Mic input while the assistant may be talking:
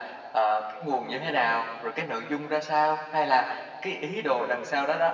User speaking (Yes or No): No